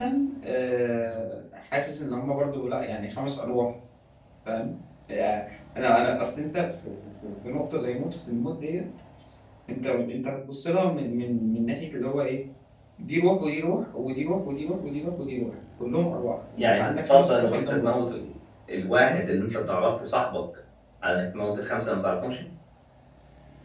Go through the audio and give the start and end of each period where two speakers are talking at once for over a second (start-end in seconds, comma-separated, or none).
16.6-17.9